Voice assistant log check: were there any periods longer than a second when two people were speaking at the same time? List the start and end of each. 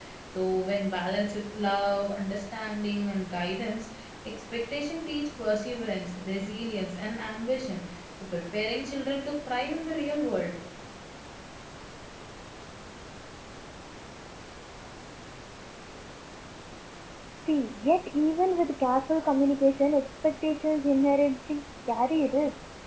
none

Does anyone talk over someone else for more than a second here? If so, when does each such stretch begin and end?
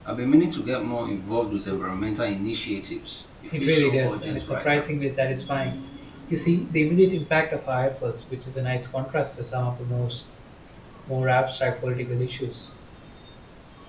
3.5-4.8

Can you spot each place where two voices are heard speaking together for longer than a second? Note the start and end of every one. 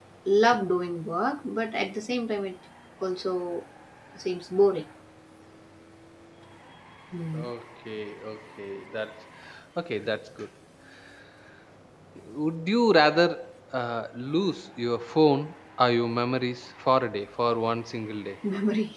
none

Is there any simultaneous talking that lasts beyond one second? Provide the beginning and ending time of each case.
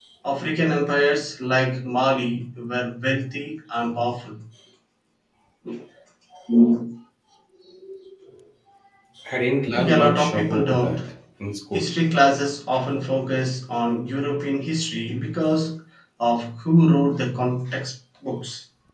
9.7-11.0

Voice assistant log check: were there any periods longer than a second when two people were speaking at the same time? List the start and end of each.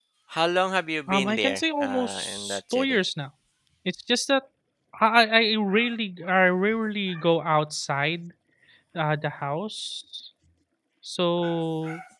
1.1-3.0

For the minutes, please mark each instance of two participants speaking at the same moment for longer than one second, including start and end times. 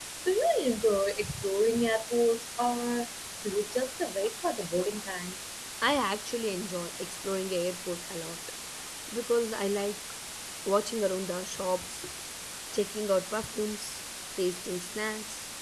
none

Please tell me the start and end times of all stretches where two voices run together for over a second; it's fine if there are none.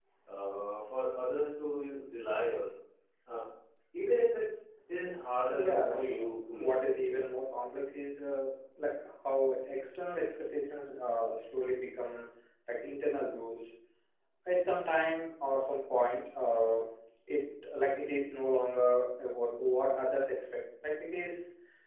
5.5-7.2

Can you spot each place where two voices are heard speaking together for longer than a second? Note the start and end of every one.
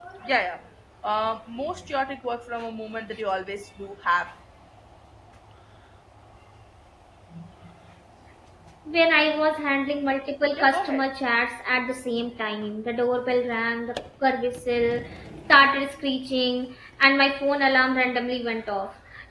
none

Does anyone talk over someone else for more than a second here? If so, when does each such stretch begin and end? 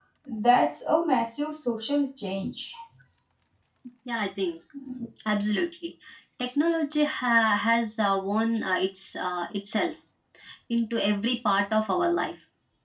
none

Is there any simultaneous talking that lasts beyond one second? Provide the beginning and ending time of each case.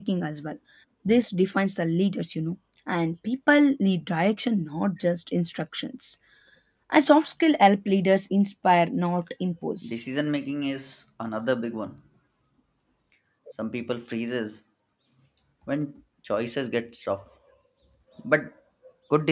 none

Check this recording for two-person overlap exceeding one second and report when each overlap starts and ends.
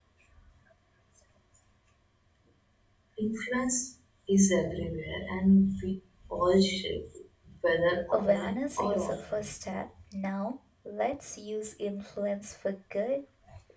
8.1-9.5

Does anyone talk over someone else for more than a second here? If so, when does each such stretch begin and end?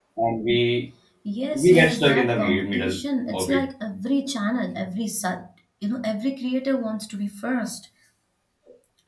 1.5-3.0

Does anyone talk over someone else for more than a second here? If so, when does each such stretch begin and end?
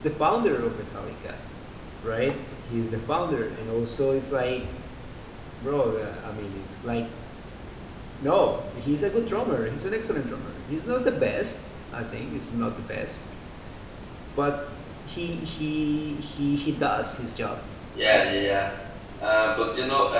none

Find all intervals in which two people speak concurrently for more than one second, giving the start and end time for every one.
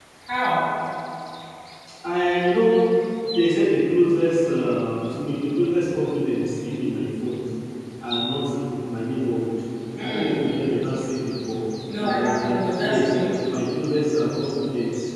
12.0-13.3

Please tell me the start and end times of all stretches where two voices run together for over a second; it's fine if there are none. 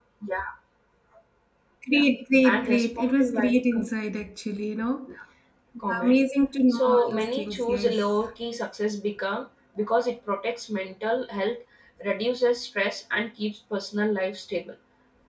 2.4-3.9, 6.7-8.1

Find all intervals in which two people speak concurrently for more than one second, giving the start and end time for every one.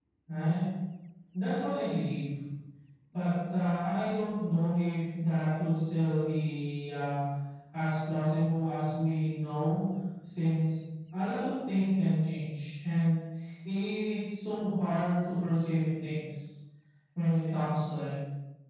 none

